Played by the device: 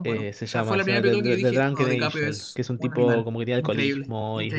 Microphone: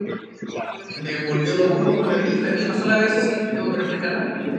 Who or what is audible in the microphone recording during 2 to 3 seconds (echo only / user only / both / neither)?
both